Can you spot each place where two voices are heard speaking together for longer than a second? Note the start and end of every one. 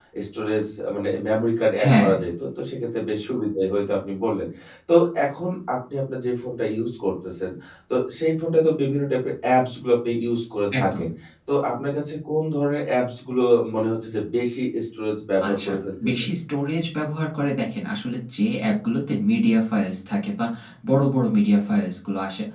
none

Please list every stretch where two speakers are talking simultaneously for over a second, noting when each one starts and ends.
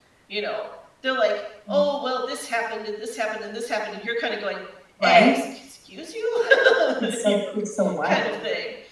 none

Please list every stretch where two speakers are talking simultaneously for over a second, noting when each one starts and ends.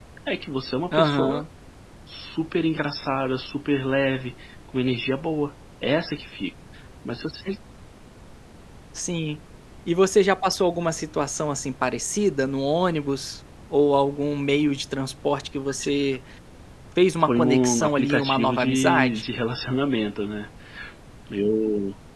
17.2-19.2

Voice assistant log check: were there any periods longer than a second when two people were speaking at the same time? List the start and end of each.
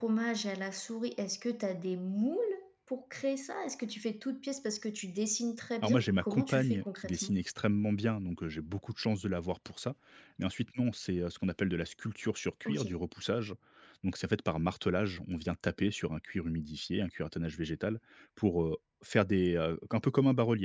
5.8-7.3

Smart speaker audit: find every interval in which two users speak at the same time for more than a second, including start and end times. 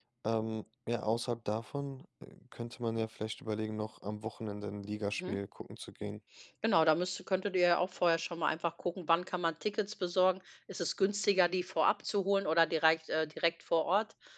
none

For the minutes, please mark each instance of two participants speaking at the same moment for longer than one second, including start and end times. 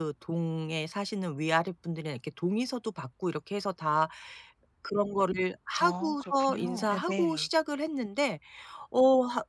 5.8-7.5

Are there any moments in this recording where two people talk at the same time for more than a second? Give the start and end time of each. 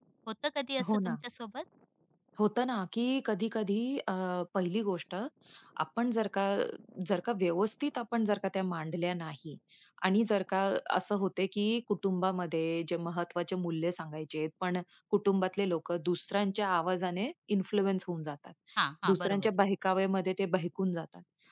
none

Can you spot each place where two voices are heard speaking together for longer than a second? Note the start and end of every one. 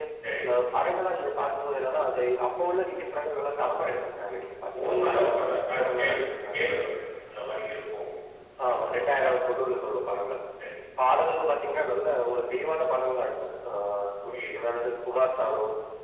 4.8-6.2

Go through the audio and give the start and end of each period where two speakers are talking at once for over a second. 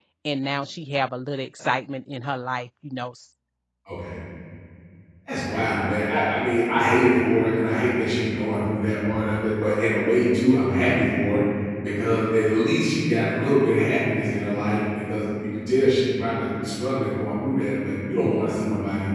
none

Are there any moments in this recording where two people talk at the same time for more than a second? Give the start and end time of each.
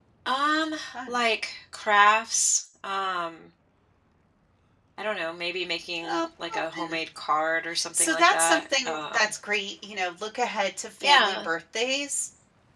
7.9-9.3

